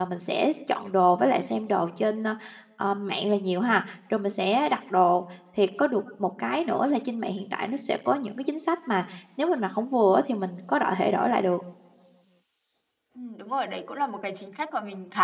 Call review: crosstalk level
none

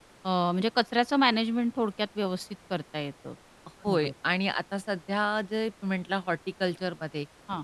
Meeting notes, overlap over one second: none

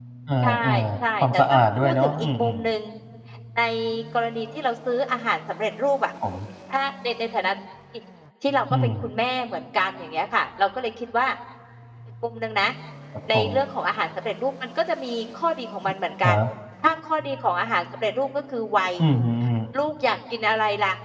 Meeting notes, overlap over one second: present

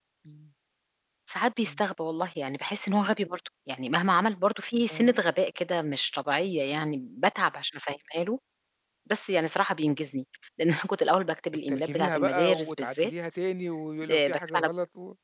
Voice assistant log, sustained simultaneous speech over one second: present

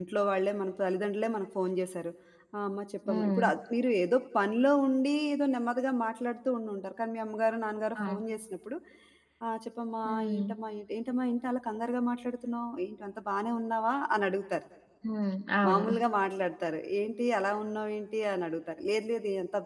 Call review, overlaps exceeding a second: none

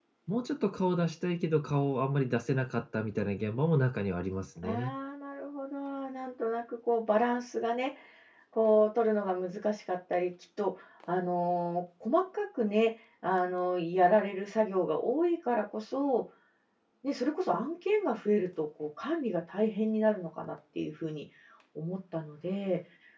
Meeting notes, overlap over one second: none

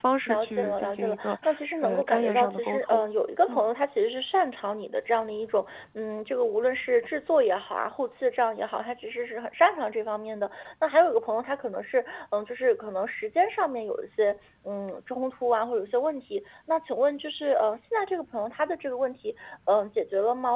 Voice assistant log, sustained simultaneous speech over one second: present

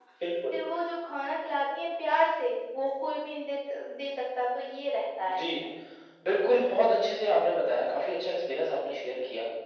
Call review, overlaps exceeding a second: none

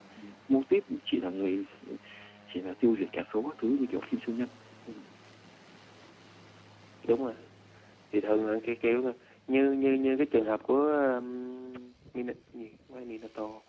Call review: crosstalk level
none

